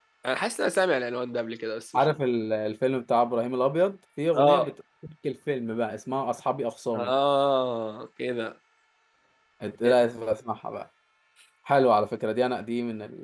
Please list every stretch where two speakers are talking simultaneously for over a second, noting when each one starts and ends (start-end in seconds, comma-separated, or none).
none